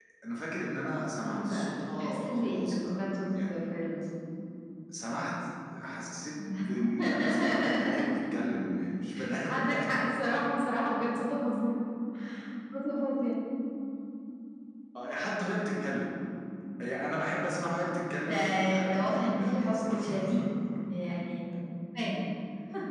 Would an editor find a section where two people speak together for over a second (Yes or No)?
Yes